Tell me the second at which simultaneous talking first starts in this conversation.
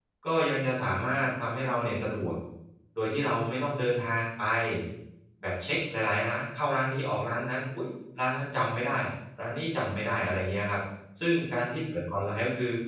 none

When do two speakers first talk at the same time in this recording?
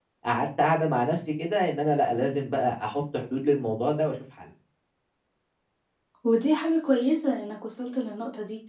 none

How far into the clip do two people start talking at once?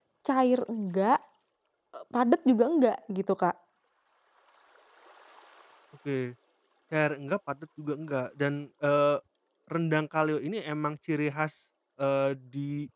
none

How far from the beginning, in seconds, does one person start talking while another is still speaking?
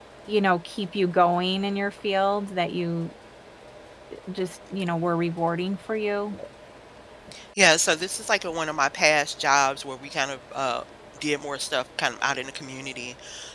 none

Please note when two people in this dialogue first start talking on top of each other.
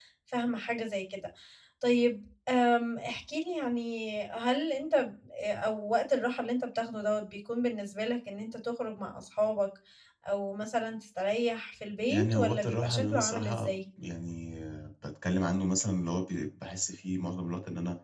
12.1 s

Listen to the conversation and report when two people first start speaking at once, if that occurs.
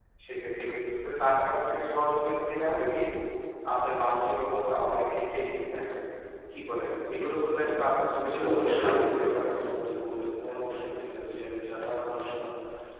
8.2 s

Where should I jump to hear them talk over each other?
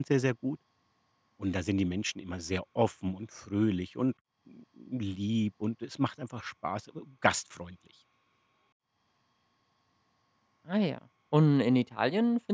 none

